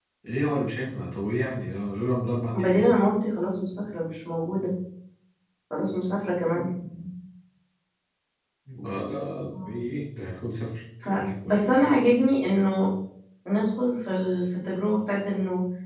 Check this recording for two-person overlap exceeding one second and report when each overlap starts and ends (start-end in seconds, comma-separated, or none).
none